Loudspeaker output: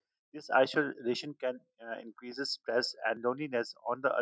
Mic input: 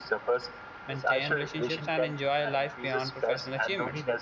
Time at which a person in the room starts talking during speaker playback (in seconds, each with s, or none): 0.9 s